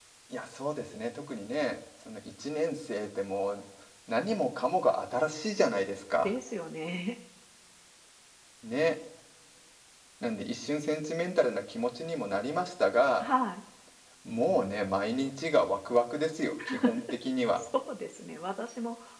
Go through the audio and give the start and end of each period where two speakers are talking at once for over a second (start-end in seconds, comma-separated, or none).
none